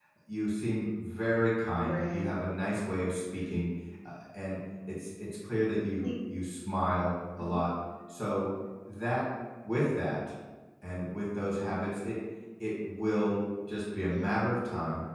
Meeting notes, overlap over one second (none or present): none